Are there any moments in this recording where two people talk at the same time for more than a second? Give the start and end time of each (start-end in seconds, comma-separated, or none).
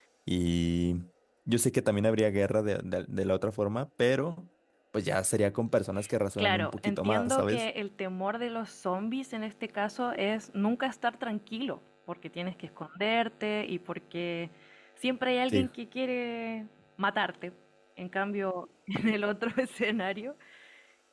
6.4-7.6